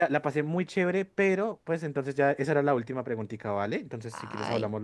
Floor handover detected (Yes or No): Yes